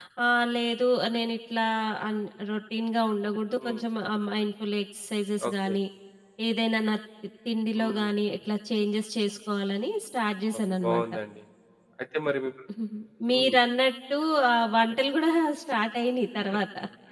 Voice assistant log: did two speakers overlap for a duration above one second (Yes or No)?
No